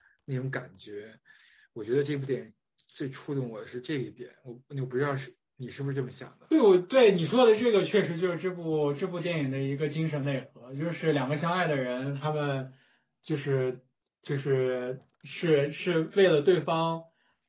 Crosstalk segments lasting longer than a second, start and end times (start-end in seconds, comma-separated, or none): none